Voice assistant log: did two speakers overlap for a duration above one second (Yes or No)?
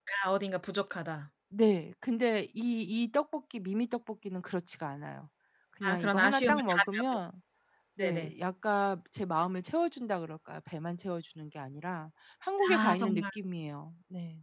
Yes